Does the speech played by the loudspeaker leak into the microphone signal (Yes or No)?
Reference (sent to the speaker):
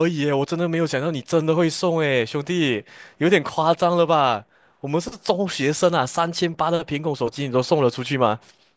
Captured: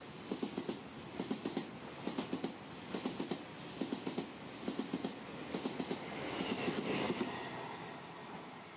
No